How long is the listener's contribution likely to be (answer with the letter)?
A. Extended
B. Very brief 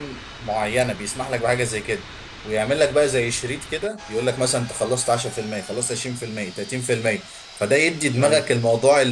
B